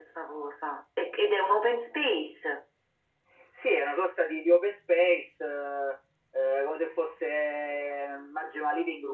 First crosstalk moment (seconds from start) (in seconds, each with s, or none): none